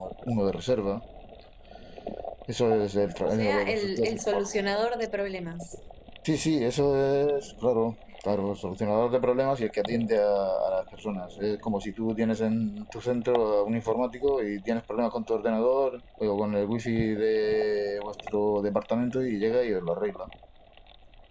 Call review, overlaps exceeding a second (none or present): present